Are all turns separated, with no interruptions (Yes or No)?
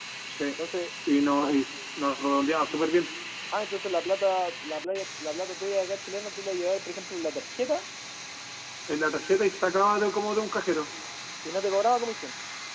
Yes